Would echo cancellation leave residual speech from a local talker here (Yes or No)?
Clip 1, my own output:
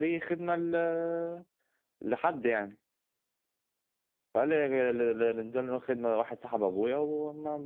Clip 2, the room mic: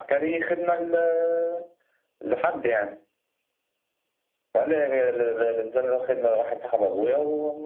No